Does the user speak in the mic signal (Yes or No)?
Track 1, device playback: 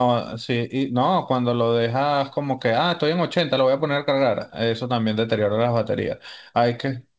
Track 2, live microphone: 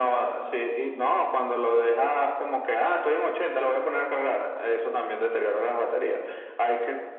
No